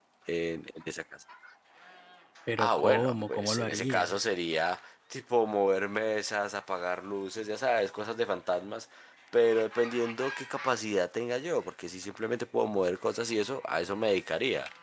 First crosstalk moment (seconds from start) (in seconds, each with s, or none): 2.6 s